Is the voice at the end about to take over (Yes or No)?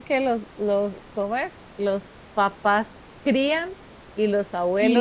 Yes